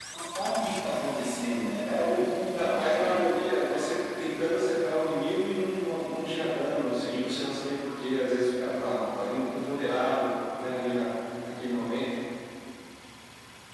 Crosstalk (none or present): present